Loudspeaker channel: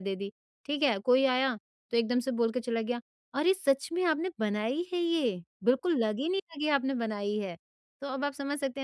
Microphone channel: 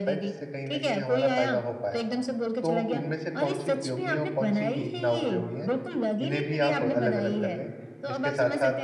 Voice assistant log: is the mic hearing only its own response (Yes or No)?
No